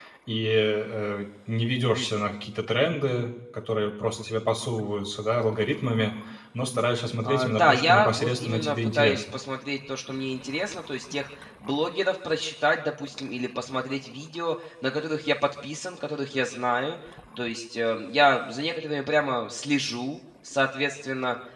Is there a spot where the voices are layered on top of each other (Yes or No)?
Yes